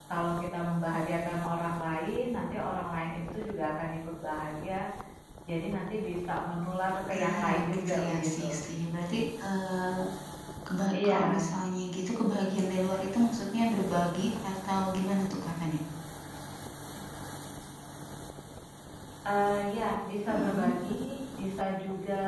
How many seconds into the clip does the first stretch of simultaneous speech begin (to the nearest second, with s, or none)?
7 s